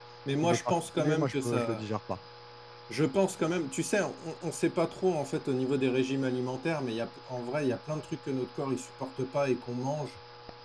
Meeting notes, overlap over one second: present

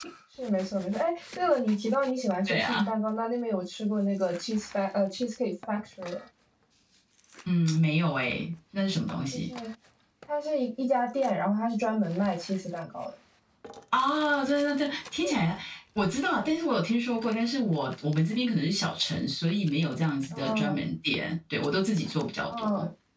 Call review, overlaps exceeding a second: none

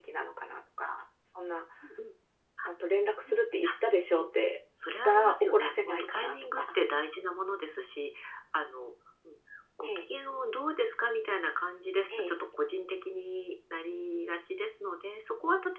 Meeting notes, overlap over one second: present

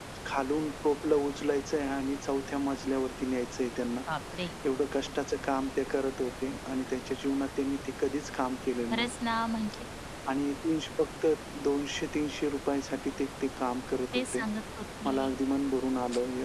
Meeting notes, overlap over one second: none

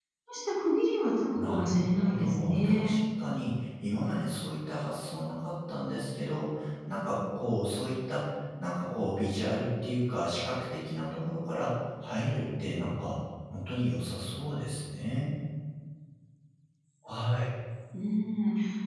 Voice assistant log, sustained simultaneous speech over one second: present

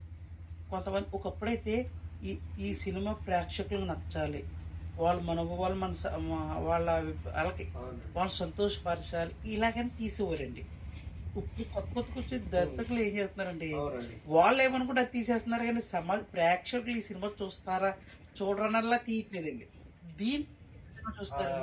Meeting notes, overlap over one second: none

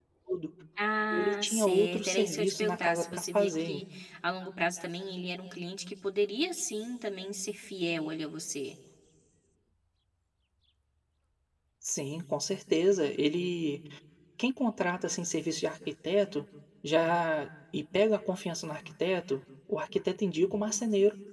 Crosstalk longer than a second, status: present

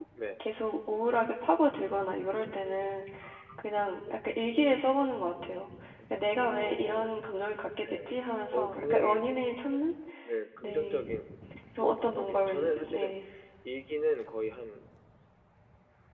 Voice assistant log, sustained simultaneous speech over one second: present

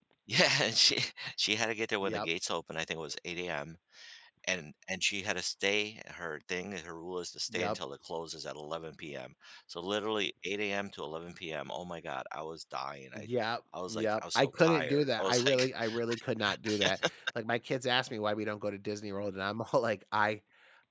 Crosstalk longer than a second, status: present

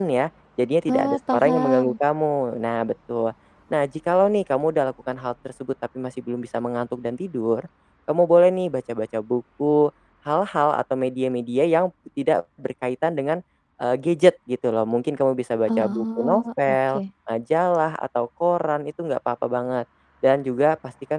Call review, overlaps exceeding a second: present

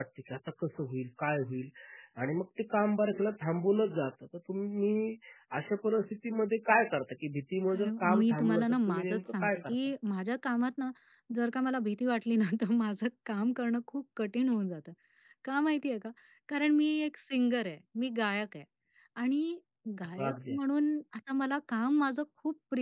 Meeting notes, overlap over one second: present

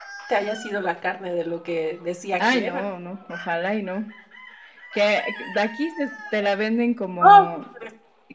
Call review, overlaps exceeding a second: none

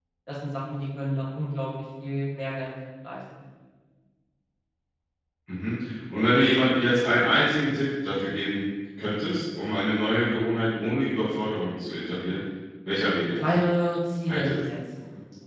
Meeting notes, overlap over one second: none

